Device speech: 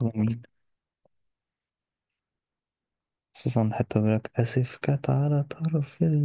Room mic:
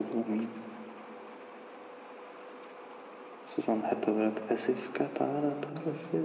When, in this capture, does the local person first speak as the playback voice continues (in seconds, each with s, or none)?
none